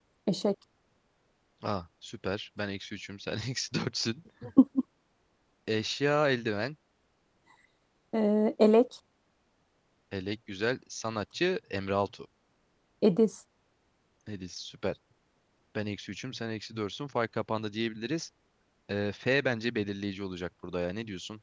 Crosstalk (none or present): none